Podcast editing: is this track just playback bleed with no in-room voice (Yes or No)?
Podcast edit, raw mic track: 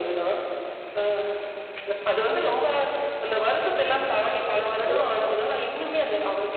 No